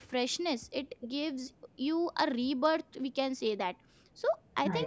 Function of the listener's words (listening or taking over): listening